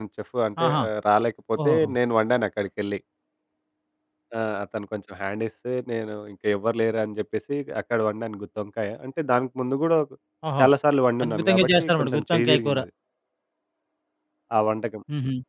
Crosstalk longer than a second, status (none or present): present